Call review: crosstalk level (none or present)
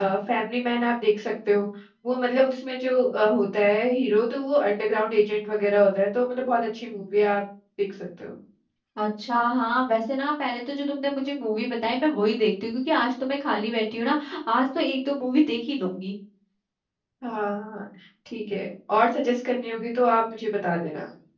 none